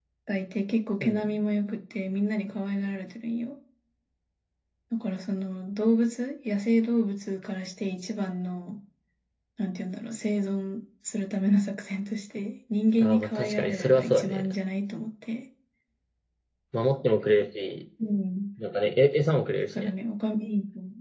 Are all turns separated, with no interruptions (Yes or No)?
No